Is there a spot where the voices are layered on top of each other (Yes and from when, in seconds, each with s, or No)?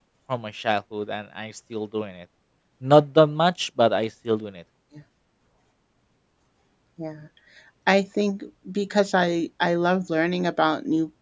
No